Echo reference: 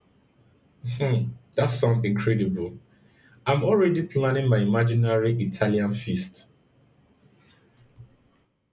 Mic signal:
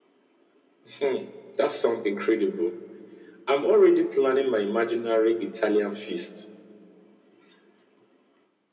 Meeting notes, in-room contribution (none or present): none